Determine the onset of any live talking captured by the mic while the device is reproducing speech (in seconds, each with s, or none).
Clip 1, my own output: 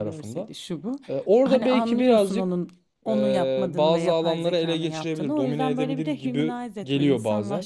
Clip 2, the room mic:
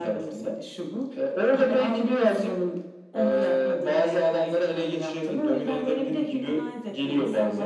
none